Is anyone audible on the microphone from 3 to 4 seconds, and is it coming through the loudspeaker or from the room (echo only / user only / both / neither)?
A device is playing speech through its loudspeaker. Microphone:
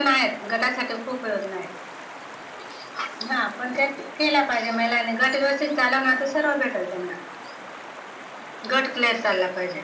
echo only